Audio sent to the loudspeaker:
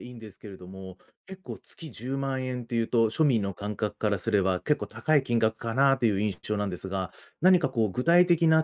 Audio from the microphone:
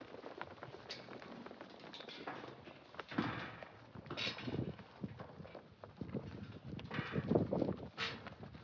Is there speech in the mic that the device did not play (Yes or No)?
No